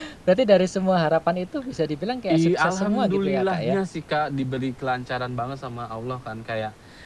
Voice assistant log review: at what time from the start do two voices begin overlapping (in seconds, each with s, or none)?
2.3 s